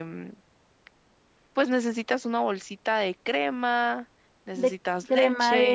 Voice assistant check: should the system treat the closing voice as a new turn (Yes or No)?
Yes